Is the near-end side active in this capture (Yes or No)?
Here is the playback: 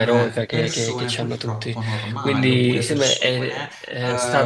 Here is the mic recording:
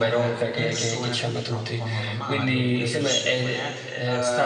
No